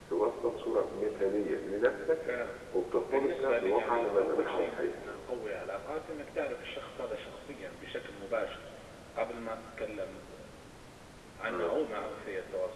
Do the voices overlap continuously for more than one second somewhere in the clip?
Yes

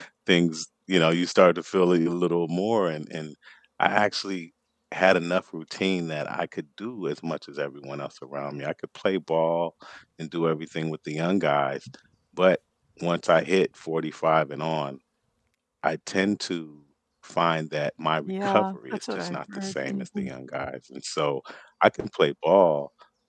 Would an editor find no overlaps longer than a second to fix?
No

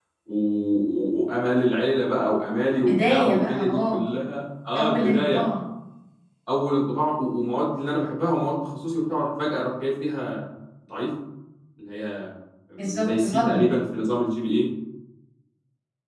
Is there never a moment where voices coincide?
No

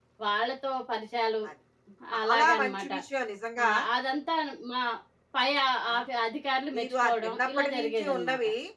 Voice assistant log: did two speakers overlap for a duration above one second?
Yes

